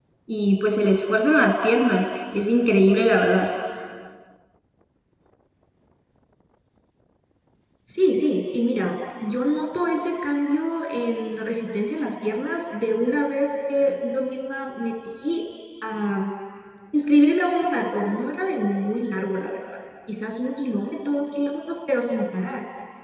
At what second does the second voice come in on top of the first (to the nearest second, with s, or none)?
none